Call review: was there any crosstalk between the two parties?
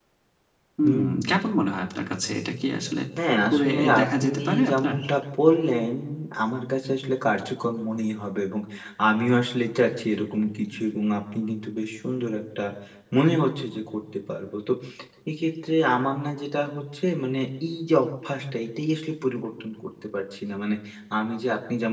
Yes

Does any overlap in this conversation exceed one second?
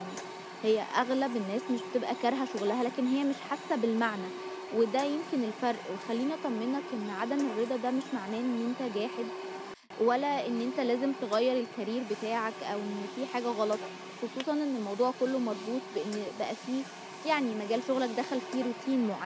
No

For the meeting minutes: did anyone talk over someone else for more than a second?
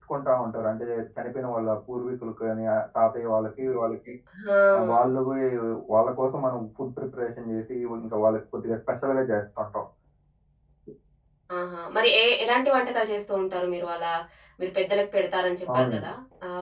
No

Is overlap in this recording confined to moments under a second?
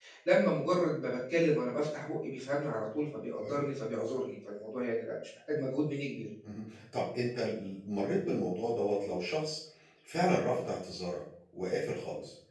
Yes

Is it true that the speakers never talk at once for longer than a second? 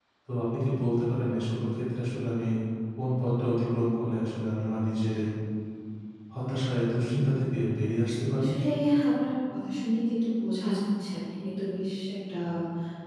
Yes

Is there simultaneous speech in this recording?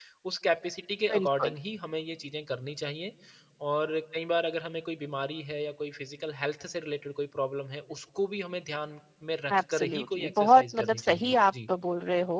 Yes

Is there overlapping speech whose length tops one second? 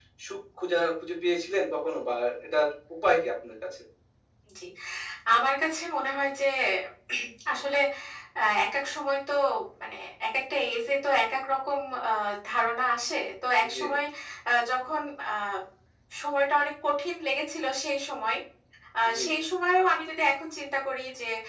No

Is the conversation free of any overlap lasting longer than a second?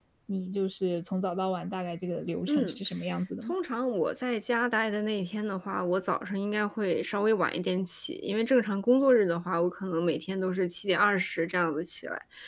Yes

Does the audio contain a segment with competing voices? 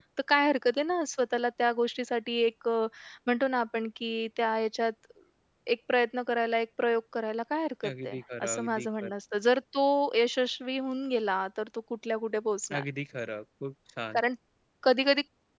Yes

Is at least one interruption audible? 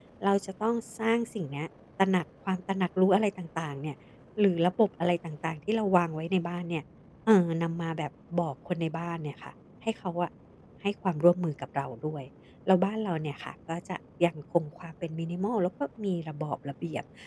No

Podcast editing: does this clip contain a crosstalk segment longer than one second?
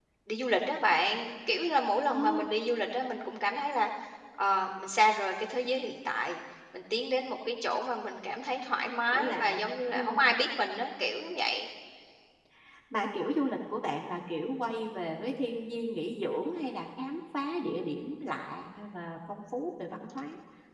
Yes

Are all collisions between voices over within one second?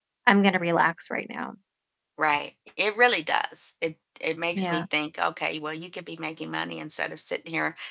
Yes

